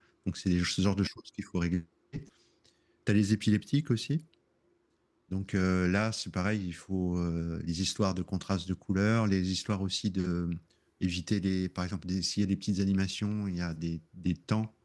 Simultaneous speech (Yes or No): No